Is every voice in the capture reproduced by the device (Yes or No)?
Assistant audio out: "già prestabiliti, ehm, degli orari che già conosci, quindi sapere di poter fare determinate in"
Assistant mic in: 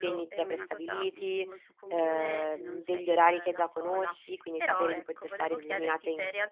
No